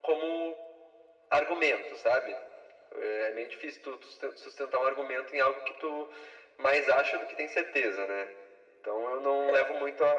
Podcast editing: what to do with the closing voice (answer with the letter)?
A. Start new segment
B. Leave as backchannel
B